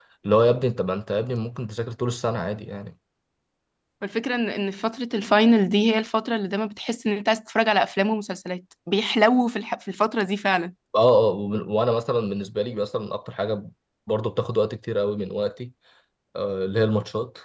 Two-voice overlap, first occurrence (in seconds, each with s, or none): none